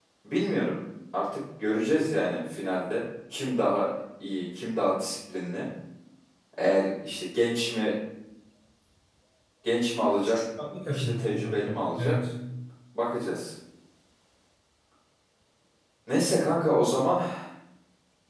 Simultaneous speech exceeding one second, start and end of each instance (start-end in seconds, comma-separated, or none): 10.9-12.1